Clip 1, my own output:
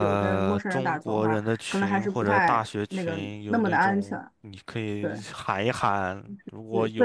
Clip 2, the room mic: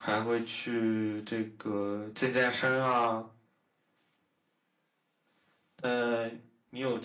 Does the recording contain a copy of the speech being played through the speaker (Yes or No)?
No